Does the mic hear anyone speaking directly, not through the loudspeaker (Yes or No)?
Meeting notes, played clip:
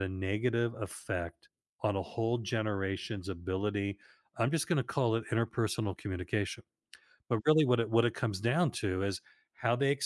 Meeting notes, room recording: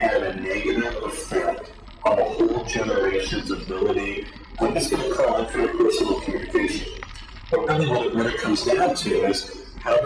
No